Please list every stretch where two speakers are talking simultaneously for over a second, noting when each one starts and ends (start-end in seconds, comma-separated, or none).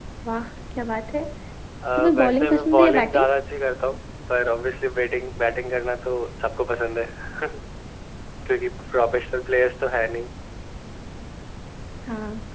2.0-3.2